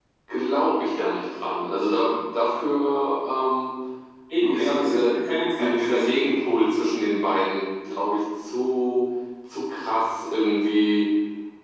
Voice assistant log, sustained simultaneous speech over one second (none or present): present